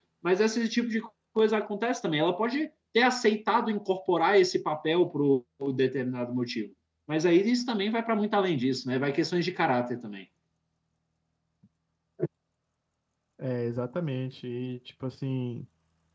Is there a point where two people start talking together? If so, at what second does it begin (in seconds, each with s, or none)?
none